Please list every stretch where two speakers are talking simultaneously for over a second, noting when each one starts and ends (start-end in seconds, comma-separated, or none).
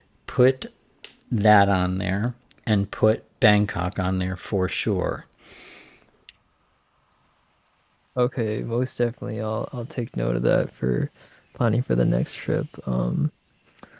none